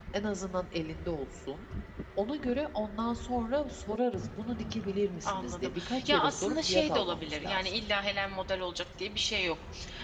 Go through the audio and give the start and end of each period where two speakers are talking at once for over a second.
5.2-7.8

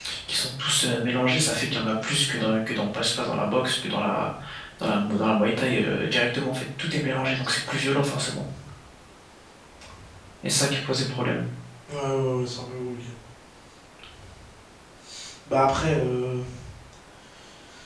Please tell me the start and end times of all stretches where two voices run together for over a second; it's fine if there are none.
none

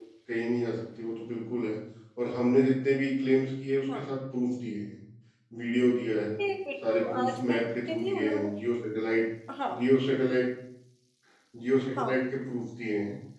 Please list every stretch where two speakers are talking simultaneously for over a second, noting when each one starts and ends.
6.8-8.5

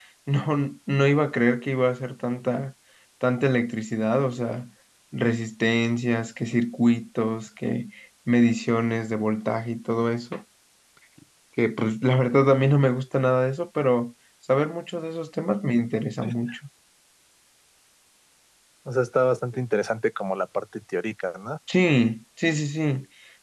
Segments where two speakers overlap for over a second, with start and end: none

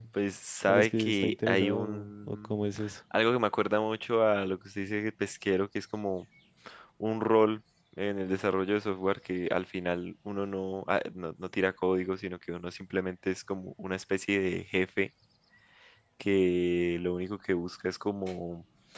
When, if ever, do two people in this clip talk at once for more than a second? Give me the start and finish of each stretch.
0.7-2.5

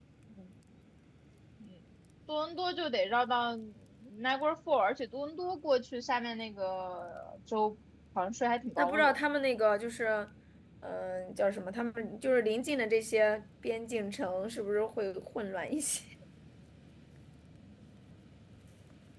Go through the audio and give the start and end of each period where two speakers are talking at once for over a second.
none

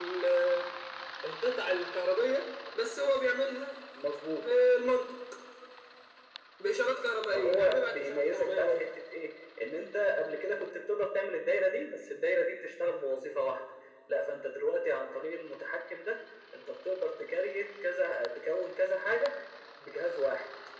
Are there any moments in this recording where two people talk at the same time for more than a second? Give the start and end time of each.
7.3-8.9

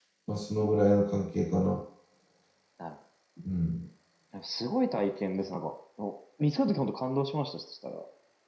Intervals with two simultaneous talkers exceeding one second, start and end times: none

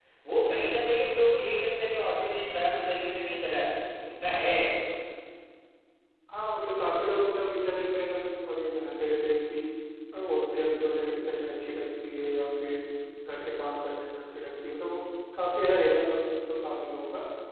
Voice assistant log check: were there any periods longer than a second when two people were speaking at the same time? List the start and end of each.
none

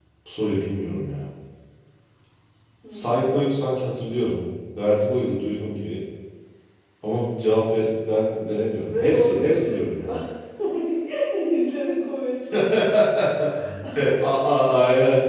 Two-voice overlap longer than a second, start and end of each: 8.9-10.1

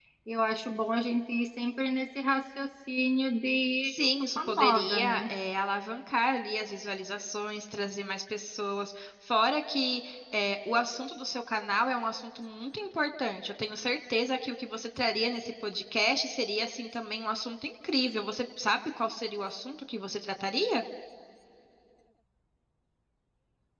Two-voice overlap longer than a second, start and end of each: 3.9-5.2

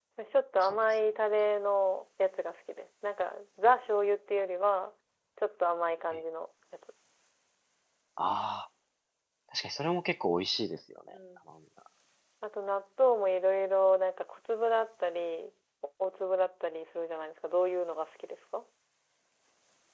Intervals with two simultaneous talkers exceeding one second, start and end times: none

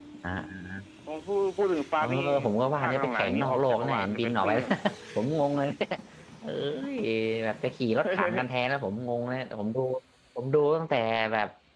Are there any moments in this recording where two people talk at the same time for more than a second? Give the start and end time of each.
2.8-4.5

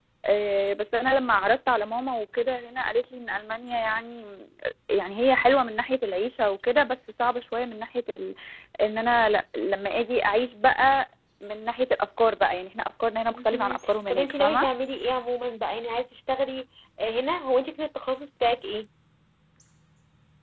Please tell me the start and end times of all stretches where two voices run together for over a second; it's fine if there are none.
13.3-14.7

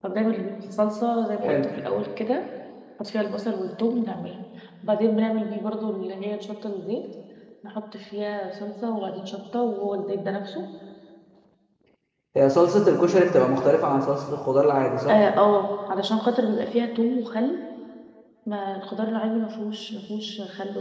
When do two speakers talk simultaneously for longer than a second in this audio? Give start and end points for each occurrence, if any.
none

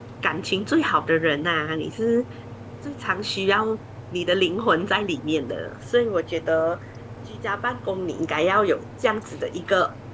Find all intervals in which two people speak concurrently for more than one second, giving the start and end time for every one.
none

